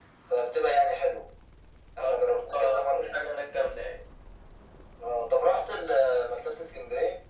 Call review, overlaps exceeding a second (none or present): present